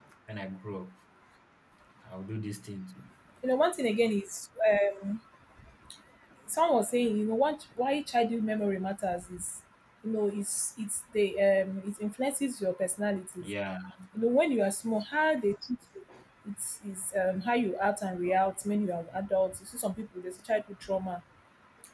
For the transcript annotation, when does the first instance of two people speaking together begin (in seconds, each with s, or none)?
none